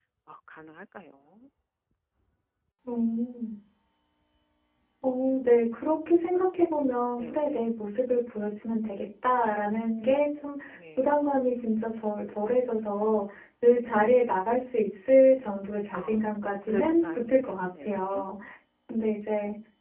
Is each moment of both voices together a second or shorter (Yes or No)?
No